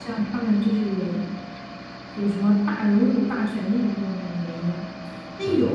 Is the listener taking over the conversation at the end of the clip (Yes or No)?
No